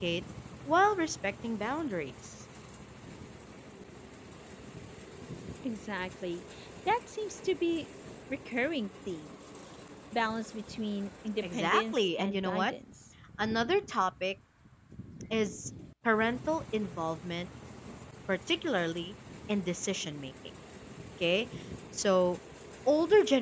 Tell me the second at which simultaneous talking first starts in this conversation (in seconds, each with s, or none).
11.4 s